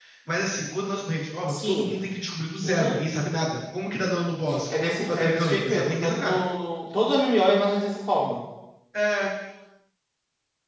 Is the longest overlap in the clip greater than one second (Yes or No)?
Yes